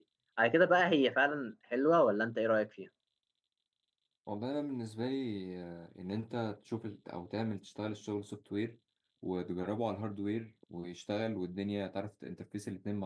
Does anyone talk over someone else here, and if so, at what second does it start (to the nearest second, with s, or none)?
none